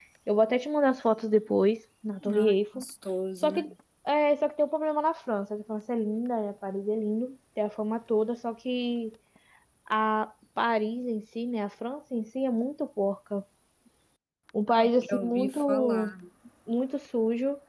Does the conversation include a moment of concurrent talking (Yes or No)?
Yes